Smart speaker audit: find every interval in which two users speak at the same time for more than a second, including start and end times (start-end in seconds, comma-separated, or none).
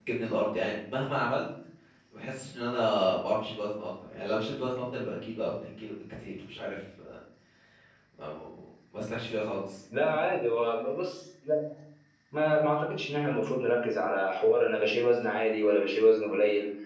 none